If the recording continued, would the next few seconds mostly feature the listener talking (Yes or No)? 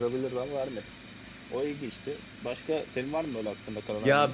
Yes